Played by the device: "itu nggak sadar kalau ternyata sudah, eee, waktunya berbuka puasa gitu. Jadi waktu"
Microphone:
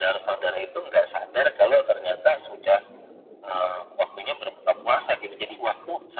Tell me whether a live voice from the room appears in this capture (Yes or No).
No